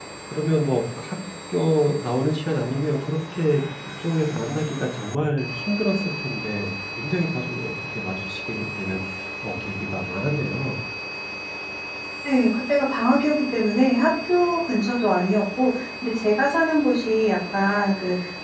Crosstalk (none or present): none